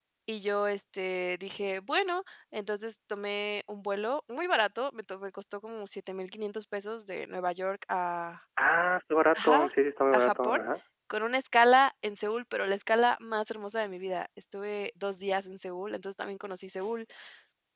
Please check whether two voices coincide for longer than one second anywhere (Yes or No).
No